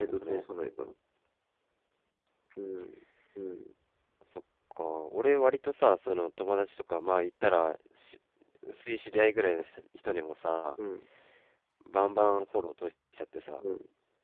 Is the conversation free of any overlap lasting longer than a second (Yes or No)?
Yes